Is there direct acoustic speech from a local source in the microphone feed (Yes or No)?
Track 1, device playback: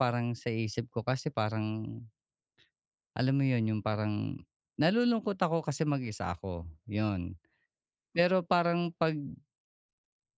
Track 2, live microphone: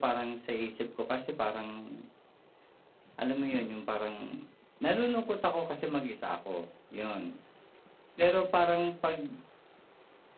No